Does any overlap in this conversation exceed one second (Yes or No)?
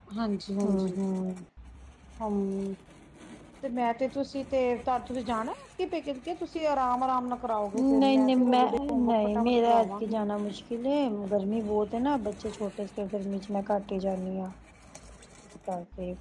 Yes